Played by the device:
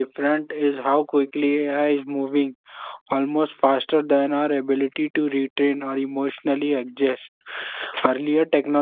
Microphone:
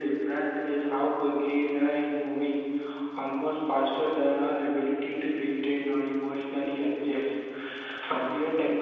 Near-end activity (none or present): none